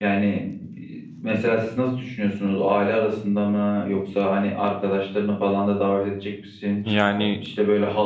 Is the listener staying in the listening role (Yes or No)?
Yes